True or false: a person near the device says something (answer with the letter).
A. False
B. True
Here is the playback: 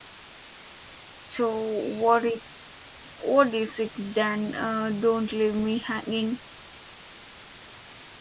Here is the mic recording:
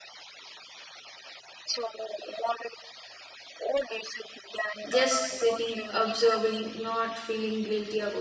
B